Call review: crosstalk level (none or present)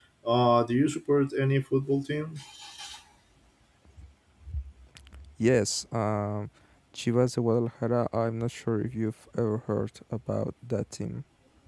none